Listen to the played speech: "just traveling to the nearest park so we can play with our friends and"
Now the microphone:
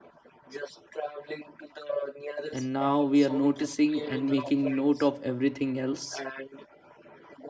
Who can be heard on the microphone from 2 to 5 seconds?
both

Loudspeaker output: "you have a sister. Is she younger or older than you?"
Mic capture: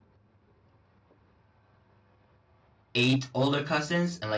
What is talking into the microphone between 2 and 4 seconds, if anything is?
user only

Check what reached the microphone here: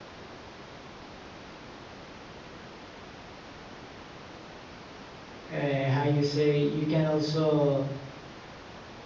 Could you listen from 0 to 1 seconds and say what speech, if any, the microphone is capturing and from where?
neither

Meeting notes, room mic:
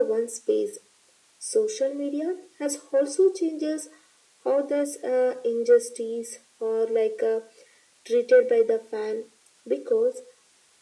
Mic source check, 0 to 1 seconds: echo only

